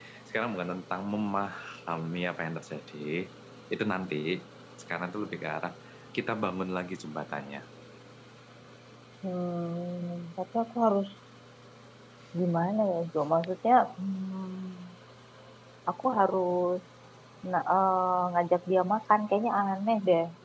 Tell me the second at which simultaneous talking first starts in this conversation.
none

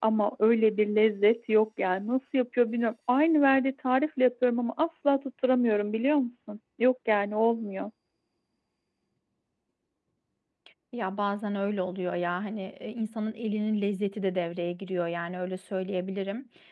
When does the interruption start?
none

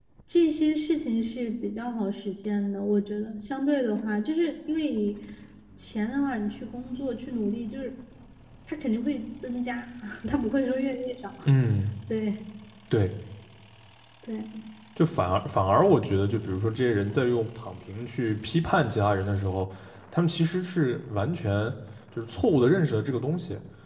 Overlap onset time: none

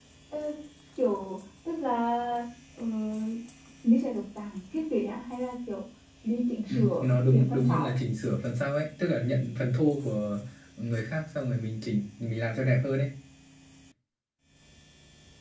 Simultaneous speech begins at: 6.7 s

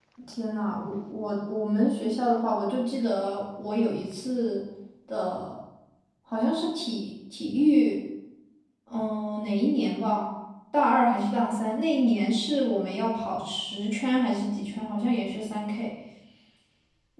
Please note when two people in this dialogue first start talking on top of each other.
none

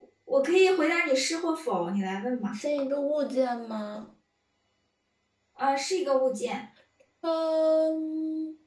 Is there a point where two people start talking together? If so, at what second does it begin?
none

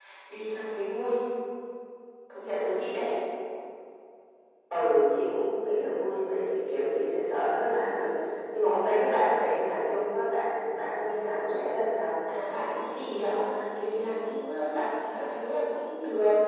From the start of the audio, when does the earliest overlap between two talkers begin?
none

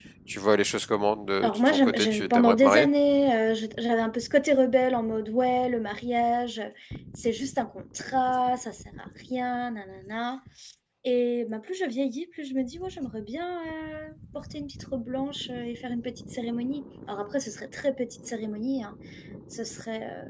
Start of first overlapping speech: 1.4 s

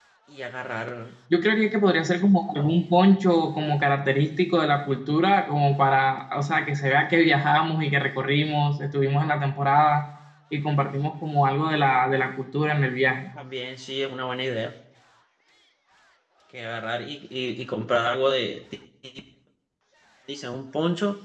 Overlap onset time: none

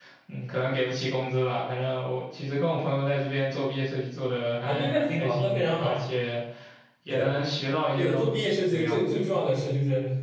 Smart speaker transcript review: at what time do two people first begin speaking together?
4.7 s

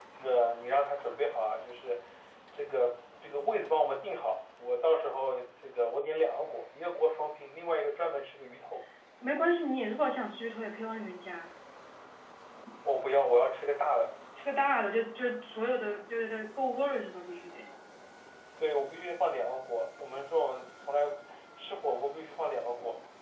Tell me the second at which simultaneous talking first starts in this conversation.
none

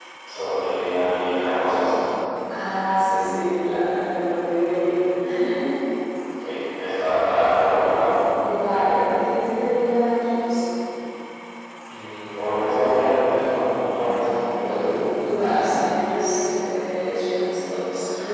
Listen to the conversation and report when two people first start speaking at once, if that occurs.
none

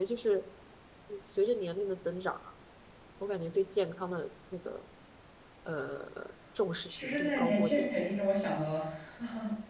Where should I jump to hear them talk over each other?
6.9 s

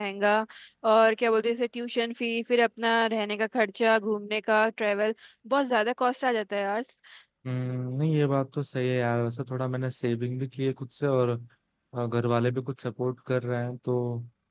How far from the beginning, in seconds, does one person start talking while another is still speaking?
none

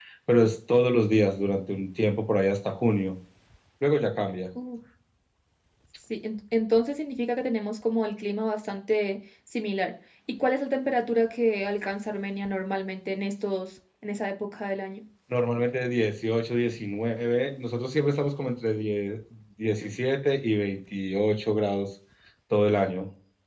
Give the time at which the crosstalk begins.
none

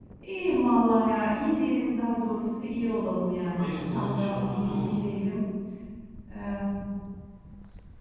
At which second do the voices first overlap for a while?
3.6 s

